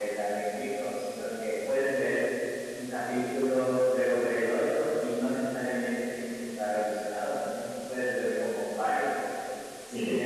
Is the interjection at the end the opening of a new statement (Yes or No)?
No